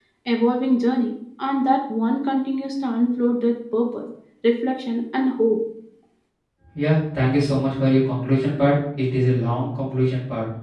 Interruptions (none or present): none